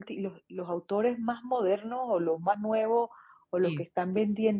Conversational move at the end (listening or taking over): listening